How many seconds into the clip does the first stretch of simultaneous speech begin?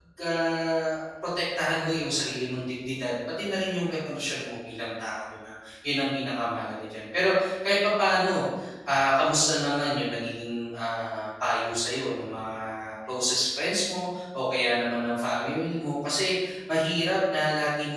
none

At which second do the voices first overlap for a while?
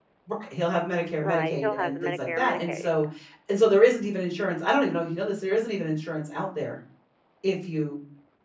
1.2 s

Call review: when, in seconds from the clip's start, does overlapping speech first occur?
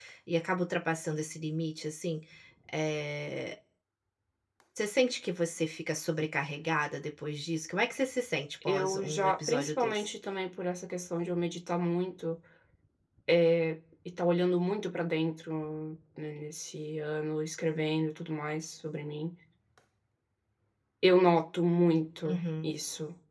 8.7 s

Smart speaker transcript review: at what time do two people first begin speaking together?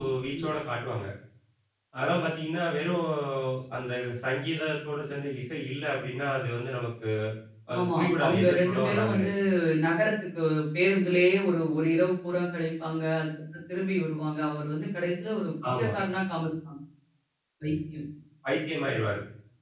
7.8 s

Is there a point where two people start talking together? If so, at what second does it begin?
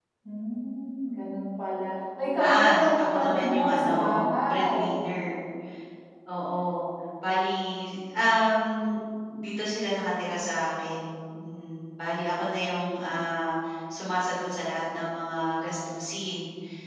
2.4 s

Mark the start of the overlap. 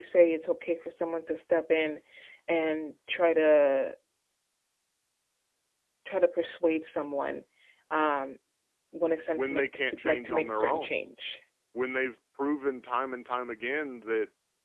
9.3 s

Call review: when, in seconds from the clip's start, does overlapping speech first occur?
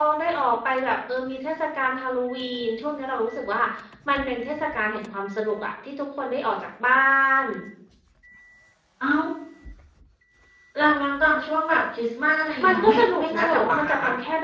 12.6 s

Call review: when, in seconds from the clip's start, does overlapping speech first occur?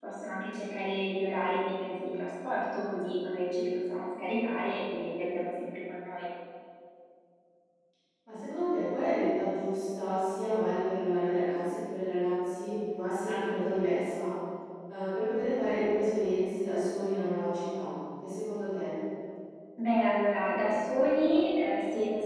none

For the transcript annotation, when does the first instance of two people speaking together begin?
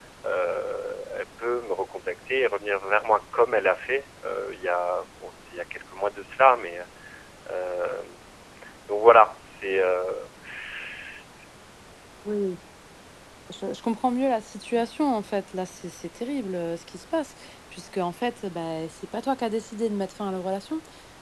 none

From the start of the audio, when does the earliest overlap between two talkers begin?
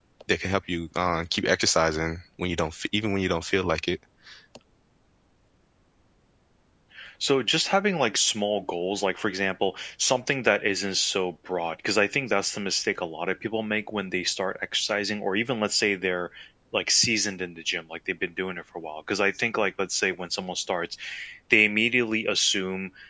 none

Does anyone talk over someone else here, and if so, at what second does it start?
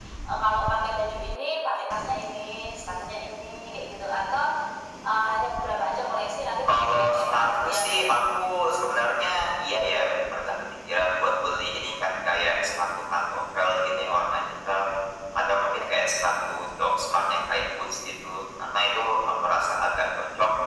6.7 s

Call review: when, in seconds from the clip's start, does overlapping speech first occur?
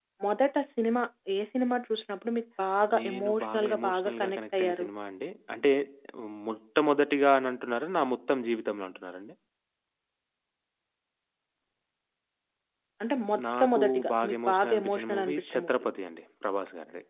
3.0 s

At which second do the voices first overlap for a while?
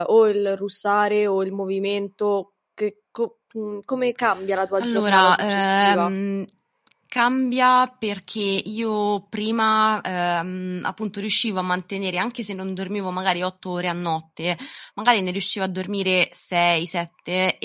4.8 s

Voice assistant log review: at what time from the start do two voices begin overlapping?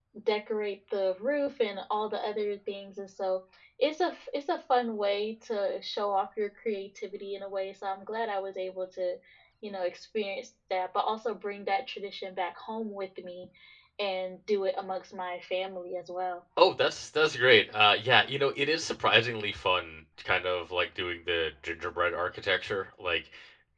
none

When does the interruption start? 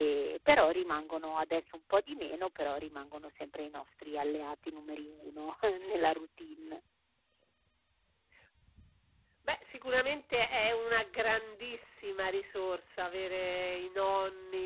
none

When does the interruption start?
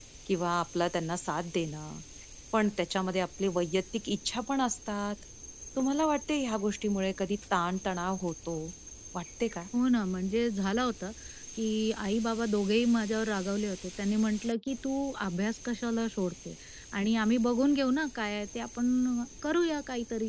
none

